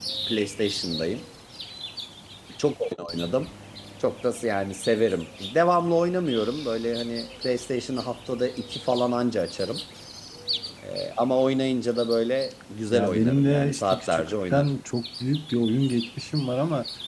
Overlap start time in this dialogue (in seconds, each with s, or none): 12.9 s